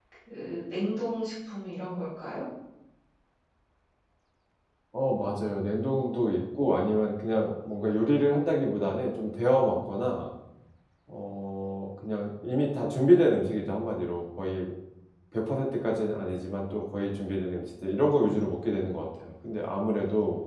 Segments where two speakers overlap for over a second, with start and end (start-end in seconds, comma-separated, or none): none